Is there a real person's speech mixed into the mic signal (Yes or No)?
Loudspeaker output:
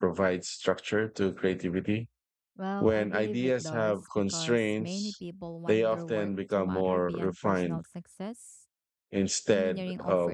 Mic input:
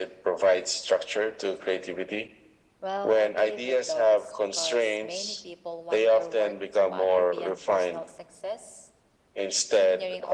No